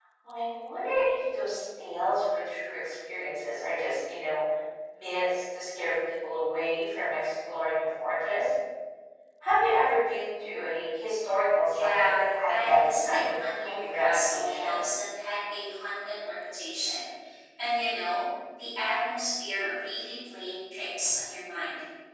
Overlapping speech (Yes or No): Yes